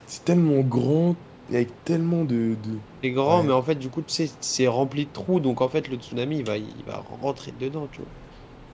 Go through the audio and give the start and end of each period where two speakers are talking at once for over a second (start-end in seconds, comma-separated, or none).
none